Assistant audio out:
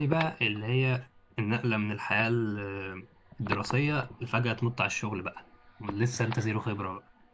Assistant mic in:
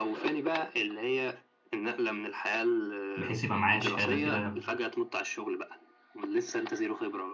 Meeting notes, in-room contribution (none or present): present